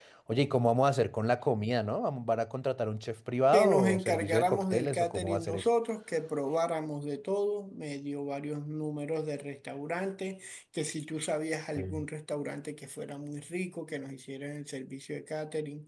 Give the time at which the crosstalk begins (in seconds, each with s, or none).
3.5 s